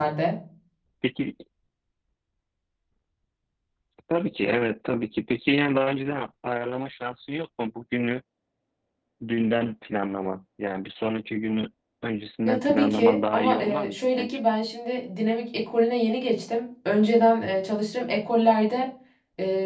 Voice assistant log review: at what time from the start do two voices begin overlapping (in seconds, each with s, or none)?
12.4 s